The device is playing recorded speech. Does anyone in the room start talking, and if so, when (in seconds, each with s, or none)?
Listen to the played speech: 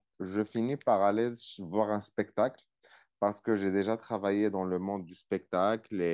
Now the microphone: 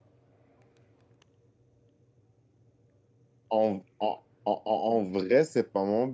3.5 s